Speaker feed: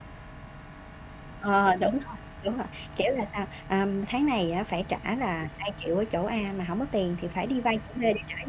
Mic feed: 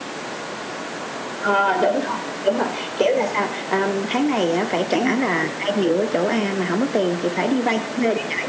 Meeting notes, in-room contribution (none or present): present